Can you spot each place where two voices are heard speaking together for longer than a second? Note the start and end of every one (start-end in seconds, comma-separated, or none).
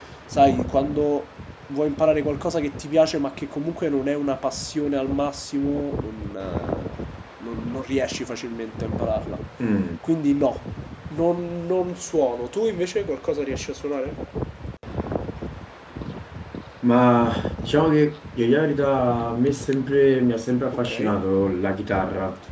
none